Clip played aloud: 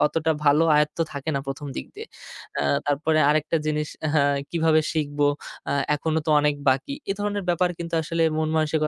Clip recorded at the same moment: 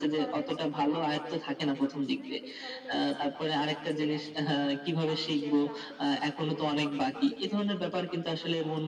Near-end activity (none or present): present